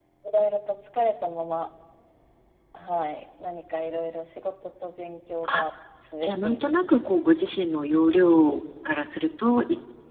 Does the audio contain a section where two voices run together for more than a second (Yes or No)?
Yes